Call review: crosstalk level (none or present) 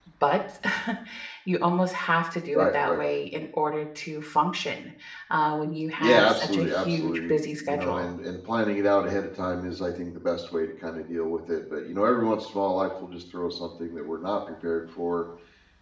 present